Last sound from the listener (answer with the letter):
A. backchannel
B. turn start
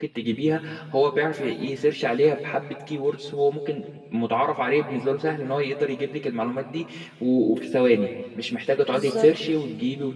A